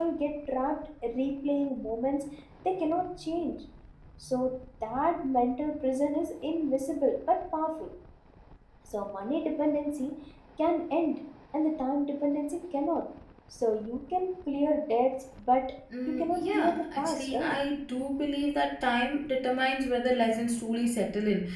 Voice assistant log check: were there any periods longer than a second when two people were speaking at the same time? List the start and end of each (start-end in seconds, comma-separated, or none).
16.2-17.6